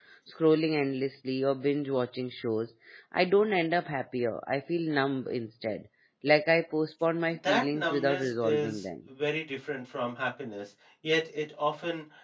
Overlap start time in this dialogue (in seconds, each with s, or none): 7.4 s